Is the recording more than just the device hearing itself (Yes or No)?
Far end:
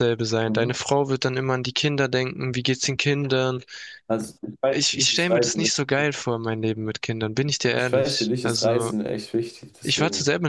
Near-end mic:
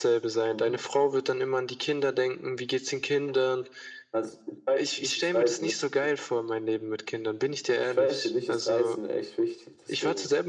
No